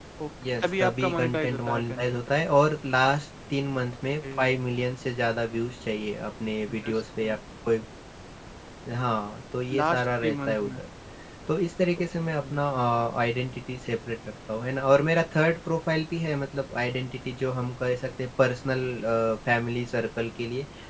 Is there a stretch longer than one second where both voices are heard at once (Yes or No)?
Yes